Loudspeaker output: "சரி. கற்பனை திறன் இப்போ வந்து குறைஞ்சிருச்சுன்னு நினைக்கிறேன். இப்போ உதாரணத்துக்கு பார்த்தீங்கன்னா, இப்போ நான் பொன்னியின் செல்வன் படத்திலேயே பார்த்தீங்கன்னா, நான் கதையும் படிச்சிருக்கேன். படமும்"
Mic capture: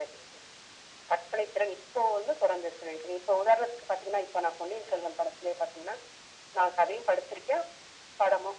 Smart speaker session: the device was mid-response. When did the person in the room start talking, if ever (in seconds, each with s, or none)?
none